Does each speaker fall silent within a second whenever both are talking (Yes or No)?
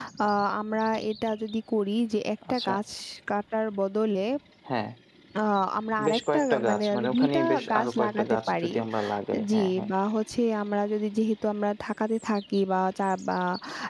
No